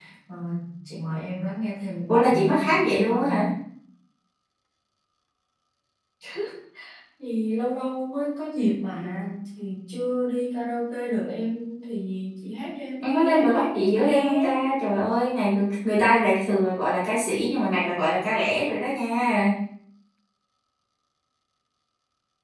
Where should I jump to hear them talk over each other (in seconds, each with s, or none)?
2.1 s